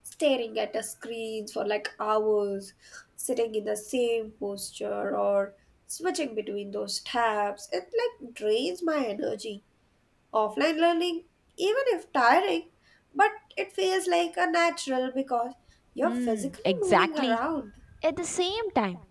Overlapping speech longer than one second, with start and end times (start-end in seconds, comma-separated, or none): 16.0-17.4